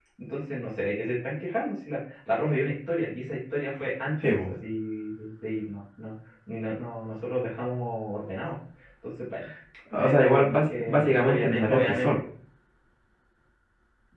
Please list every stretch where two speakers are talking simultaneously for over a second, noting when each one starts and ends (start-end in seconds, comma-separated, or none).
9.9-12.1